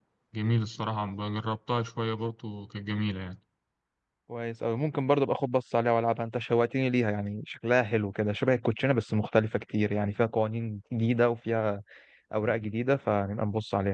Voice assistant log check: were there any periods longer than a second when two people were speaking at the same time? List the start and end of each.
none

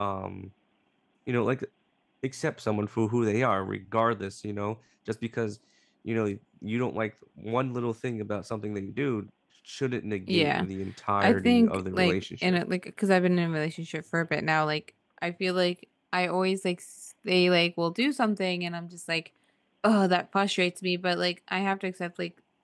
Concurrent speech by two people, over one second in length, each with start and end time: 11.2-12.6

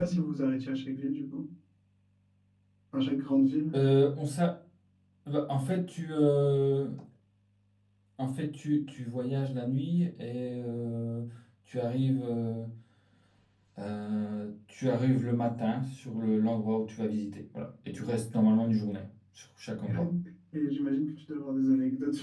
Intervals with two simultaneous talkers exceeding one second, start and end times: none

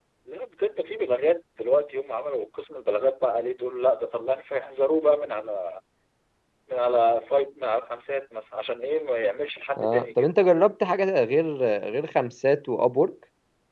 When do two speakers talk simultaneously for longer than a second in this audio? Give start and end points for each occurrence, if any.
none

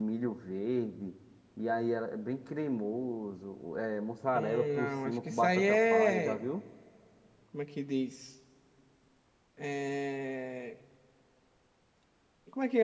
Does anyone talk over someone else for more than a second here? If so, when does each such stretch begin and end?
4.3-6.4

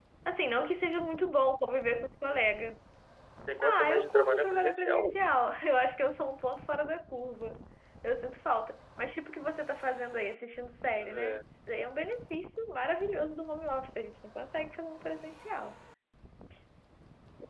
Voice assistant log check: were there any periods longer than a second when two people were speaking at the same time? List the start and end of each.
3.6-5.2

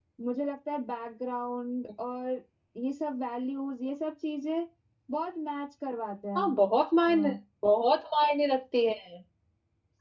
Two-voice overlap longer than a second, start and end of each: none

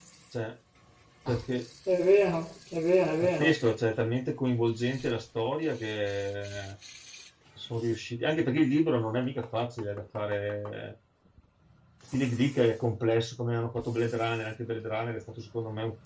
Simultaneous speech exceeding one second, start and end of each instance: none

